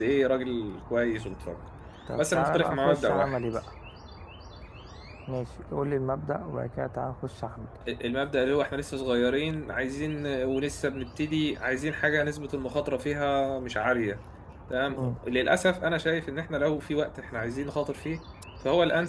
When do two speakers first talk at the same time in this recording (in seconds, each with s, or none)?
2.2 s